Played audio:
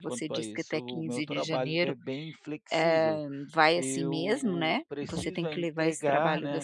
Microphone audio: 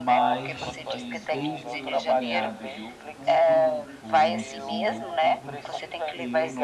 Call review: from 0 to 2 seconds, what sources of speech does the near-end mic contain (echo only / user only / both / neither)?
both